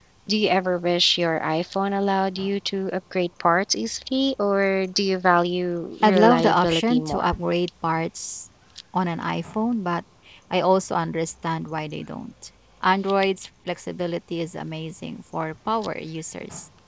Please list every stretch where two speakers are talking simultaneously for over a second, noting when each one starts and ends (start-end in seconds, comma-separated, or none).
6.0-7.3